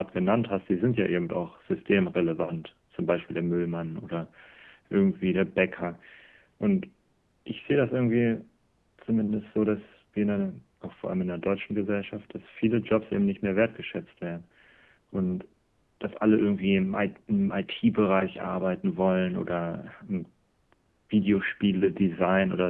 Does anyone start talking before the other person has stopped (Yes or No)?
No